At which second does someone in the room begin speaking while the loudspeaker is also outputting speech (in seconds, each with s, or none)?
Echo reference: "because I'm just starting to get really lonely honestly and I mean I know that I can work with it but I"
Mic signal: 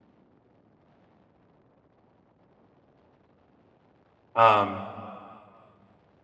4.3 s